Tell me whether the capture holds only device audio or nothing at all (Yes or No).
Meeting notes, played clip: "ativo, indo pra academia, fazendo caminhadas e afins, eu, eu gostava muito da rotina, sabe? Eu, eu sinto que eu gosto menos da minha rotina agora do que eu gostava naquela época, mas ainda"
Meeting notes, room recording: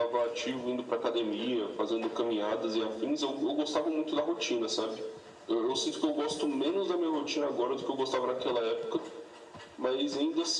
Yes